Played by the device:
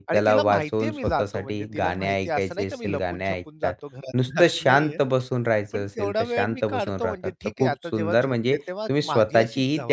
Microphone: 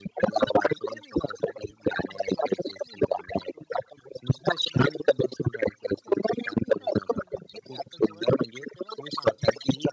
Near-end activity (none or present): none